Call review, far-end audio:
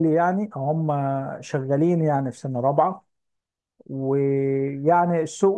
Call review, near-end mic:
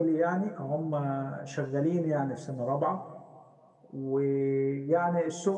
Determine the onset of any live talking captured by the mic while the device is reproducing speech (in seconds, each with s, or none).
none